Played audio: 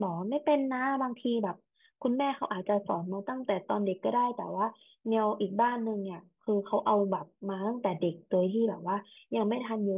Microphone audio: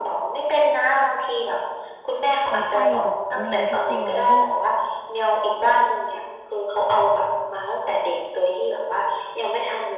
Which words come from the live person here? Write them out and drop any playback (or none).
ไปไฟกับแมวทุกตัวที่